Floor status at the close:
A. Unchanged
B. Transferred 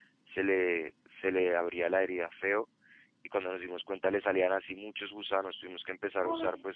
A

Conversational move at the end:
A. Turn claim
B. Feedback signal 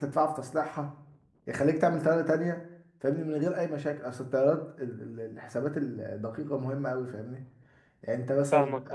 A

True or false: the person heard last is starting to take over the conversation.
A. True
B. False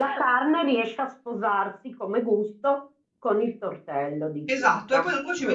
A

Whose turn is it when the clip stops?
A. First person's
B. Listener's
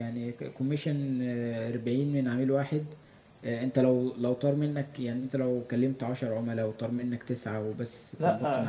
B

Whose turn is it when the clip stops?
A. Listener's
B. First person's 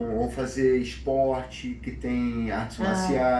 B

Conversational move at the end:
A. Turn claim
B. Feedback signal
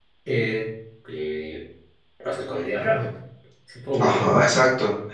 A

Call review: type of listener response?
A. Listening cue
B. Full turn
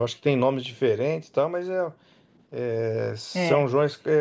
A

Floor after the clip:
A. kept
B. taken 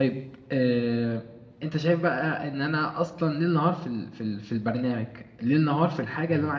B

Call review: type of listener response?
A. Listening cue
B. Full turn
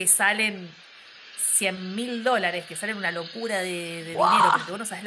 A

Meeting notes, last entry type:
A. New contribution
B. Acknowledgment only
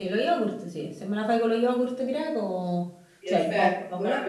A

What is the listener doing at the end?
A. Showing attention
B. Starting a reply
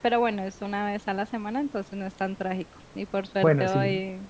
A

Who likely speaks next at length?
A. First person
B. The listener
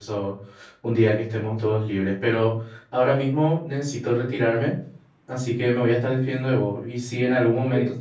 A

